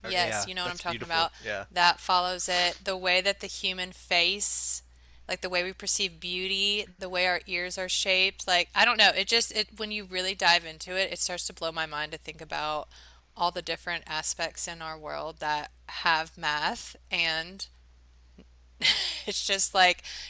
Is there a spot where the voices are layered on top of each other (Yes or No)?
Yes